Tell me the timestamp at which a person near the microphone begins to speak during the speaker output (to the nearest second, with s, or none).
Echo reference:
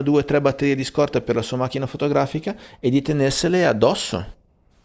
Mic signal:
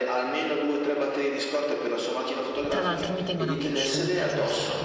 3 s